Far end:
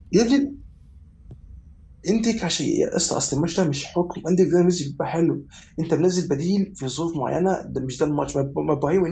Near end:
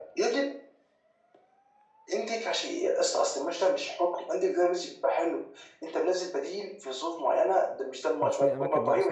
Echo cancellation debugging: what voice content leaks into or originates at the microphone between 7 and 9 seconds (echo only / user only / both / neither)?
both